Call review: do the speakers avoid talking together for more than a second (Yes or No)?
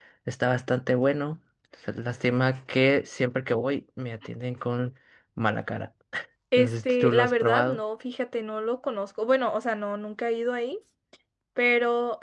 No